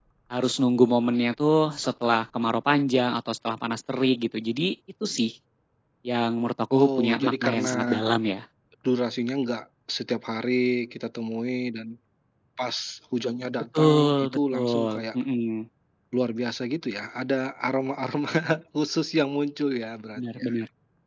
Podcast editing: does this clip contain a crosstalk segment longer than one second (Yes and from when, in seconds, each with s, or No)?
Yes, from 6.8 s